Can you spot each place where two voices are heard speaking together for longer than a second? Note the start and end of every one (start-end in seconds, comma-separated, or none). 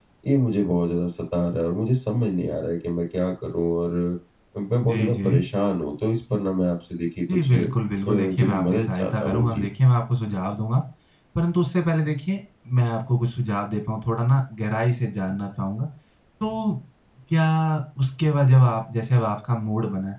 8.1-9.7